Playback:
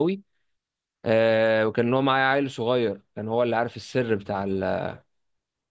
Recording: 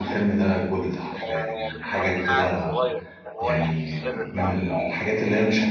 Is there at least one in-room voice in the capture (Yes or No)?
Yes